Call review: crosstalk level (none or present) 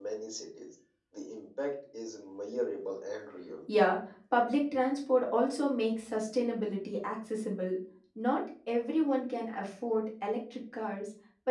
none